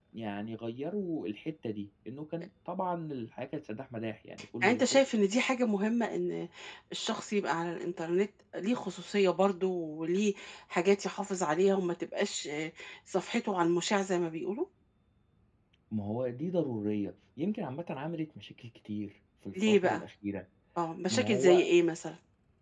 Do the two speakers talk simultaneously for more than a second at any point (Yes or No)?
No